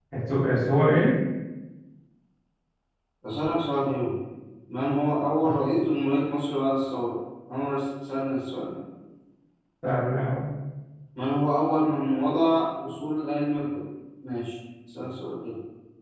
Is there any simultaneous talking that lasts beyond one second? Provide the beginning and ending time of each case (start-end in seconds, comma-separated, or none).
none